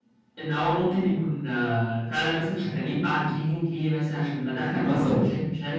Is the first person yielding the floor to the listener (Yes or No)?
No